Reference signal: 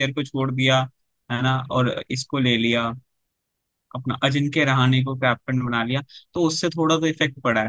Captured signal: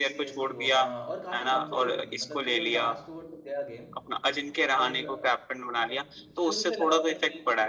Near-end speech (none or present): present